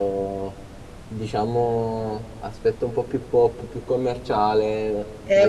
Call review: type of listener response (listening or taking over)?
taking over